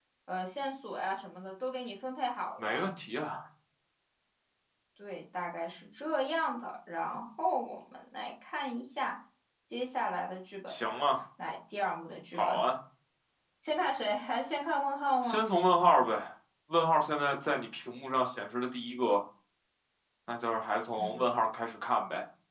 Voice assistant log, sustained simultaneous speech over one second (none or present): none